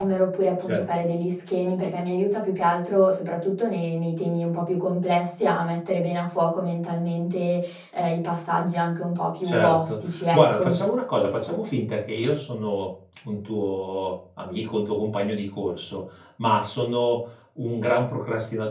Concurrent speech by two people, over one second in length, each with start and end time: 9.4-10.7

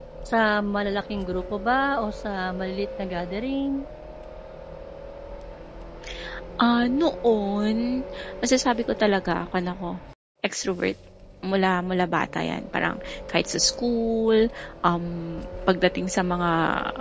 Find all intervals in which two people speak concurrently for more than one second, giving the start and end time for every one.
none

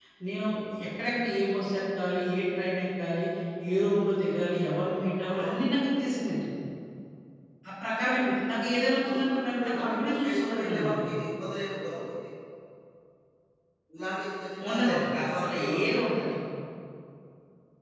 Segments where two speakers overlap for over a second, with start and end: 9.1-11.0, 14.7-15.9

